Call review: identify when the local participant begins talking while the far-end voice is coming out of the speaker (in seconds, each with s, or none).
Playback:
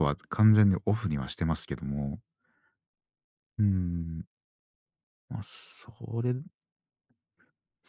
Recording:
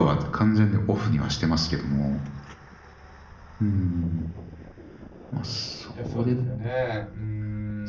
5.9 s